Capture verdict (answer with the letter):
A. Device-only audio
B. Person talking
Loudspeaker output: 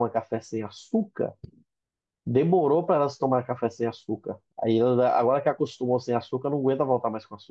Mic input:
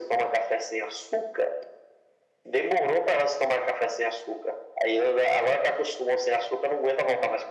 A